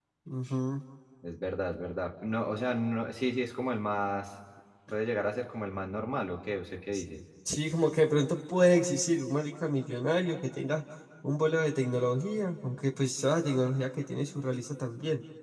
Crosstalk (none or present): none